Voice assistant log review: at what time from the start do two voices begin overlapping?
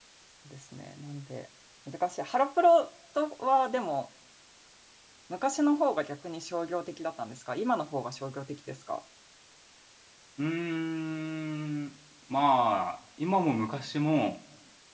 none

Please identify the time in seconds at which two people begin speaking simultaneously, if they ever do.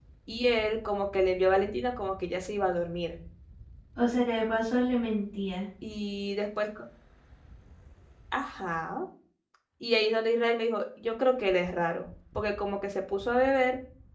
none

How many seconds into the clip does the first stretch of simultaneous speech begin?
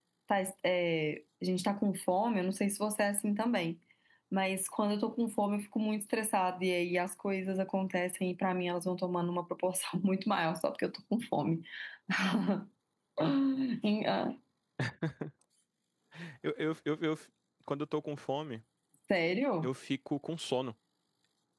none

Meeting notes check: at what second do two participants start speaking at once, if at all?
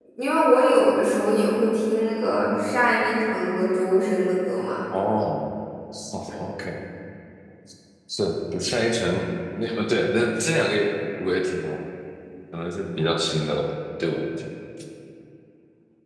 none

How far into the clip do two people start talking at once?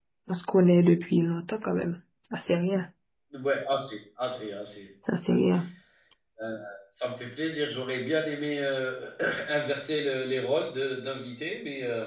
none

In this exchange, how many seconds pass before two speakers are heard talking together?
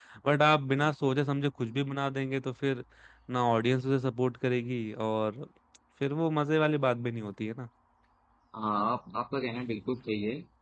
none

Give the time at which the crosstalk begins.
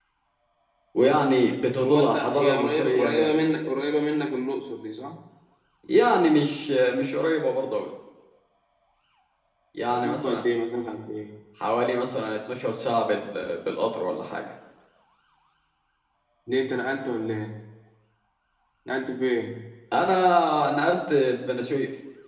1.8 s

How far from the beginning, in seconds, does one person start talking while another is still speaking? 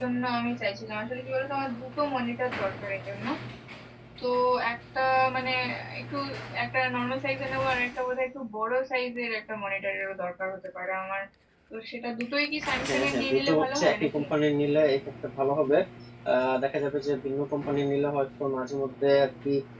12.9 s

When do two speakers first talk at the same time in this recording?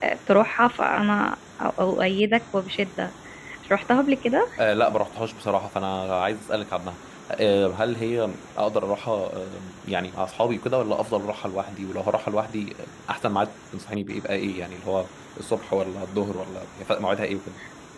none

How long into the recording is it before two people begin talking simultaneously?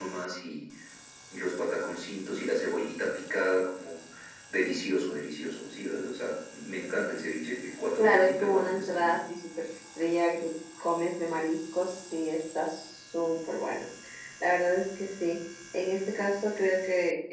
8.0 s

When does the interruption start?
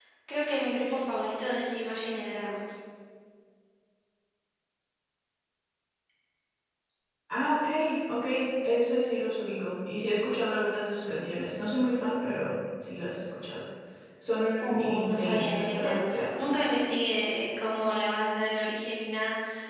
14.6 s

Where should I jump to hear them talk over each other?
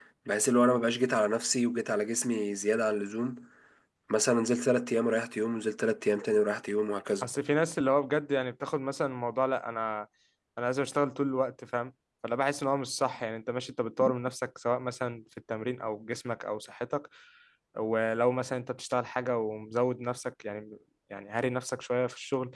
none

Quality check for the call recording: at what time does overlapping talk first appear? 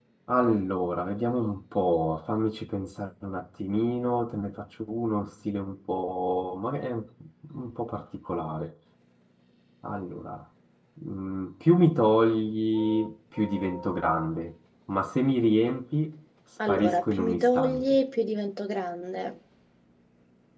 16.6 s

